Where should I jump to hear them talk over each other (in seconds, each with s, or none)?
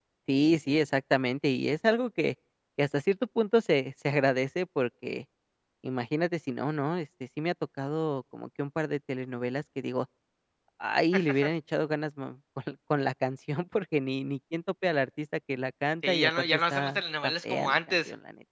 16.0 s